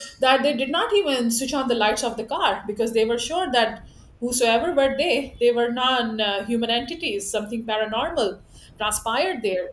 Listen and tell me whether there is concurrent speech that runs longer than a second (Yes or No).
No